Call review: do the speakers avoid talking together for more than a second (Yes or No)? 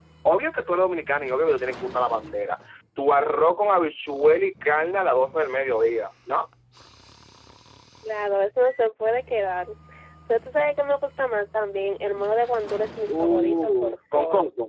No